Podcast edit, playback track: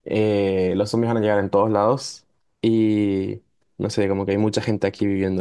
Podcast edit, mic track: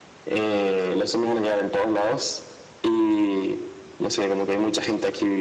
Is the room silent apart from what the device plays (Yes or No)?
Yes